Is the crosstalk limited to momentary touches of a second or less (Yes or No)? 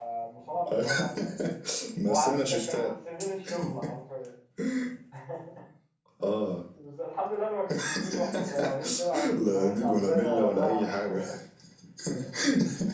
No